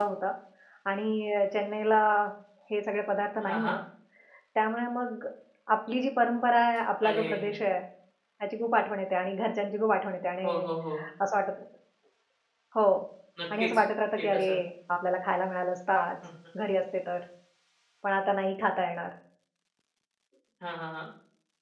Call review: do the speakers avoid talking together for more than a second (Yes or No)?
Yes